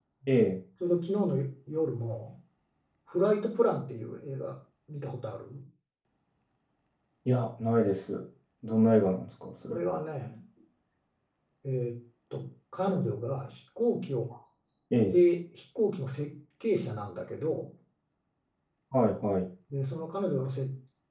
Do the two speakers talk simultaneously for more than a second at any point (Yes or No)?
No